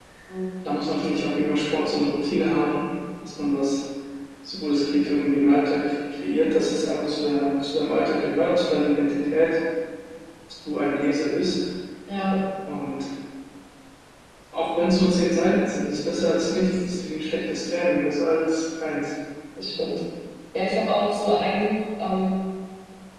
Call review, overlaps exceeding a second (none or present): none